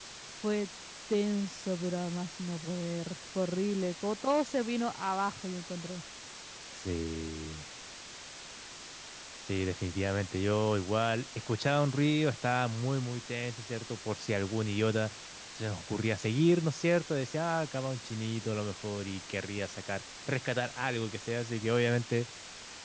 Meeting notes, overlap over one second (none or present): none